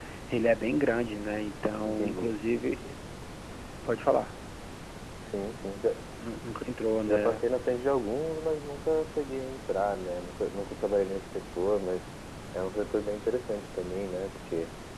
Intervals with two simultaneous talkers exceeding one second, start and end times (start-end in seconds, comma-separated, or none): none